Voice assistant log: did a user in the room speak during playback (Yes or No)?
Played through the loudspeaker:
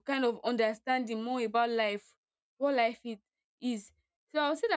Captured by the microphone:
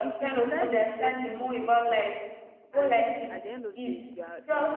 Yes